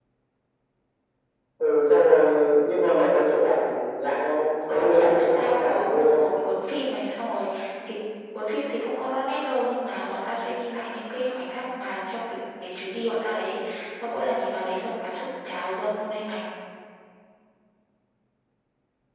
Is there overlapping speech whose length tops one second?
Yes, from 4.7 s

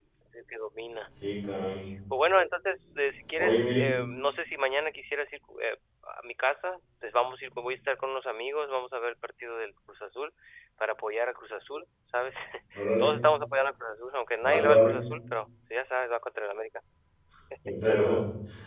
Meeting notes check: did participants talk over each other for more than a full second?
No

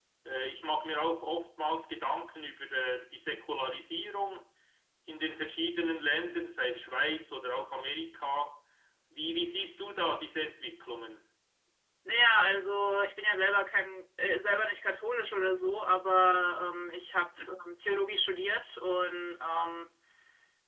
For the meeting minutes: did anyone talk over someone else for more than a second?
No

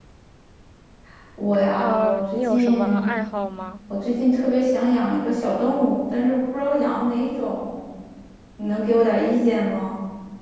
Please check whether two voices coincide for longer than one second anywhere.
Yes, from 1.8 s

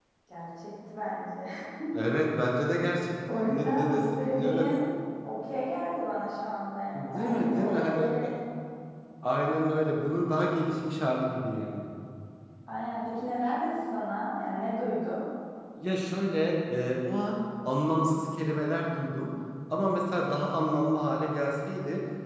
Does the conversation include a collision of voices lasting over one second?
Yes, from 3.3 s

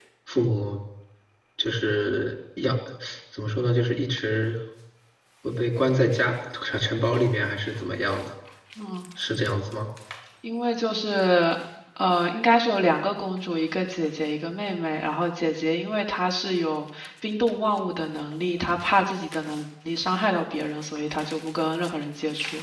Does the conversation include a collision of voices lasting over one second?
No

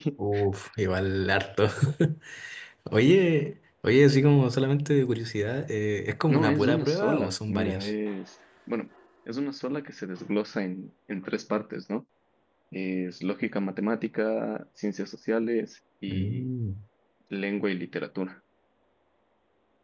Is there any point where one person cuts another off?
Yes, from 6.3 s

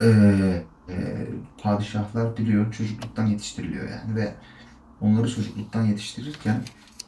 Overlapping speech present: No

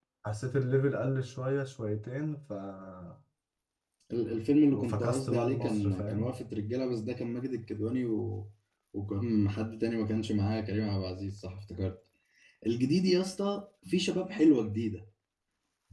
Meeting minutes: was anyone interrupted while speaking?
Yes, from 4.7 s

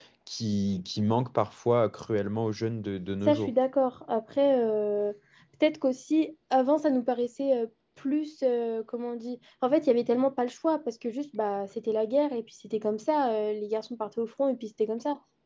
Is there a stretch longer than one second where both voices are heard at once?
No

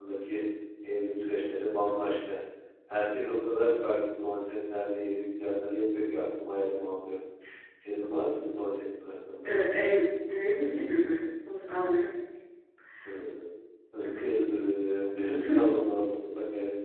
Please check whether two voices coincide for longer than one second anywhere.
No

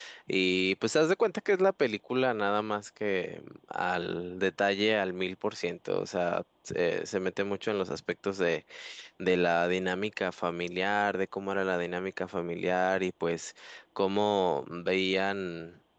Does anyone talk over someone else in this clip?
No

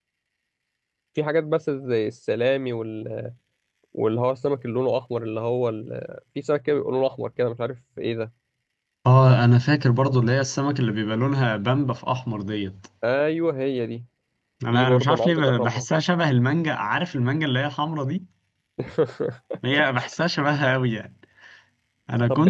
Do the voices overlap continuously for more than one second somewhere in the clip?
Yes, from 14.6 s

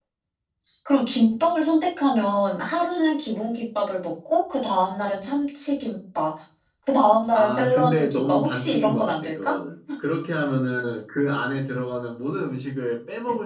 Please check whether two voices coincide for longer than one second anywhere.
Yes, from 7.3 s

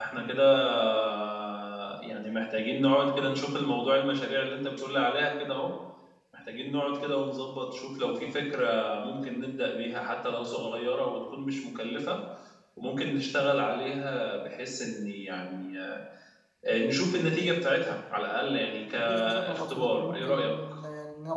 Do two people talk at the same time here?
Yes, from 19.0 s

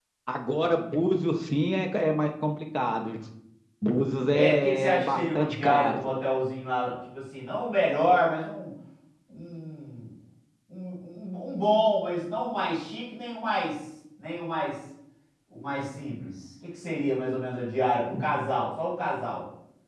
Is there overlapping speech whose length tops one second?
Yes, from 4.3 s

